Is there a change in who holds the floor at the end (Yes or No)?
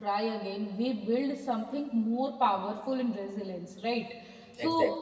No